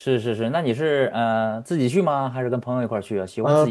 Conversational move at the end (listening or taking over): taking over